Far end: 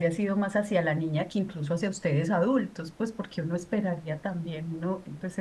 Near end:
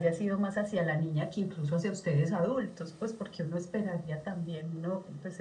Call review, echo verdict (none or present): present